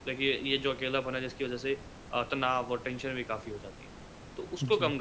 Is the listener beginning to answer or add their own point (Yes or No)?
No